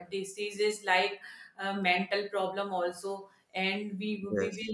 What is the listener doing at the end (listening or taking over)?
listening